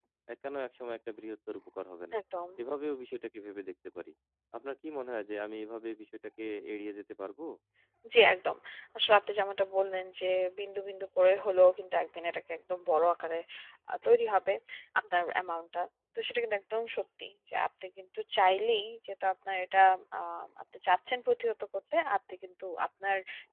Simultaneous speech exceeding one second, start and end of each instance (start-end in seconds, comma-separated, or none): none